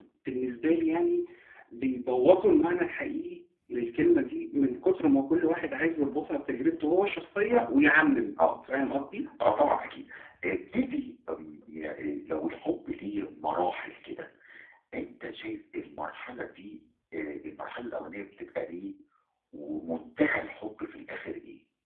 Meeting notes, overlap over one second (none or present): none